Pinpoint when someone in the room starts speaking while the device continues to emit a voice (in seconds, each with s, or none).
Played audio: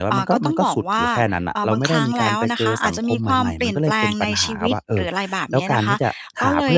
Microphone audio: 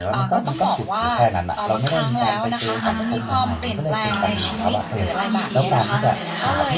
2.6 s